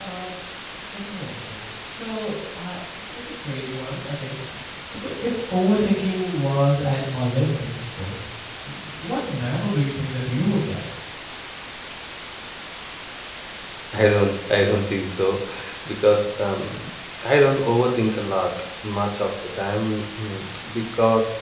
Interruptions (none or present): none